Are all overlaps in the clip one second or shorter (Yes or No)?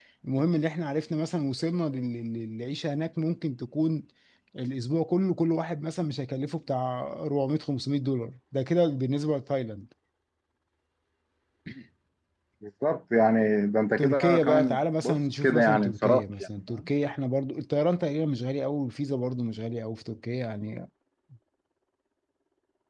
No